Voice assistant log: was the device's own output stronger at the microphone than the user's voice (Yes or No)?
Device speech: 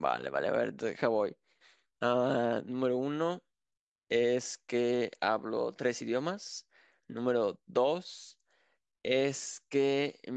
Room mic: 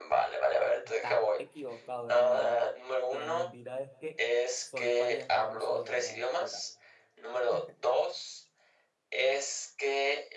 Yes